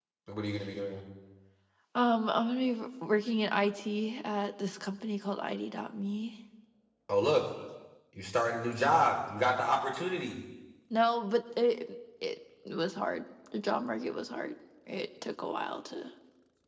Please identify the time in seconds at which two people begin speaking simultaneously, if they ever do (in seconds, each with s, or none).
none